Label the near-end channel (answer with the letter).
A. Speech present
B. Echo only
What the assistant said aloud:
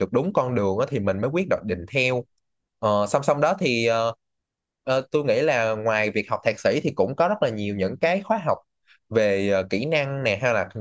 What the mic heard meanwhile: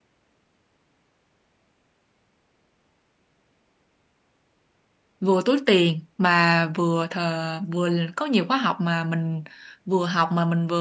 A